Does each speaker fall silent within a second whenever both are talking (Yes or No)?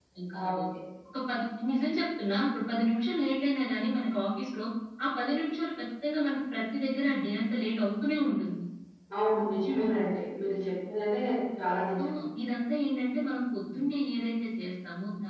Yes